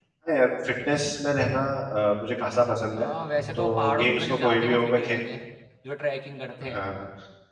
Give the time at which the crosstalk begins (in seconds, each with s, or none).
3.5 s